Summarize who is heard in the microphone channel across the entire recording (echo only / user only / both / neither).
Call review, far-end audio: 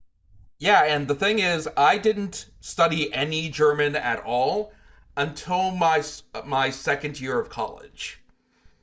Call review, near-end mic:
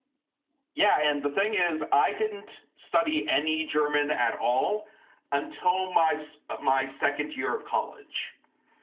echo only